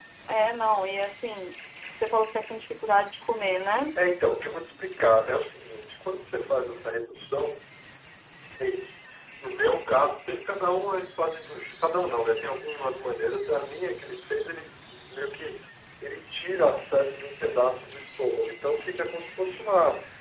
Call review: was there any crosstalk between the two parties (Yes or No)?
No